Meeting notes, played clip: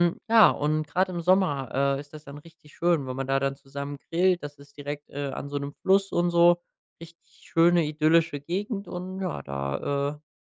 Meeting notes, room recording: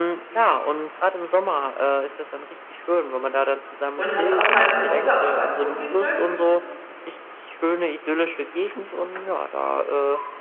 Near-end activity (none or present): present